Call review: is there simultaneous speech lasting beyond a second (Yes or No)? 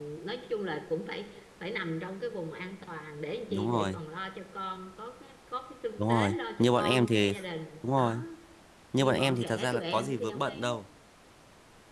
Yes